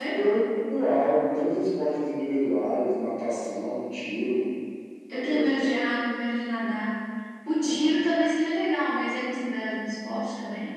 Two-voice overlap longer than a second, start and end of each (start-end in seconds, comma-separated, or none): none